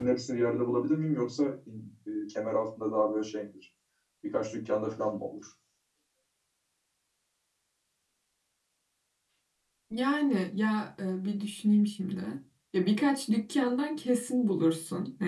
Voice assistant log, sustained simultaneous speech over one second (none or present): none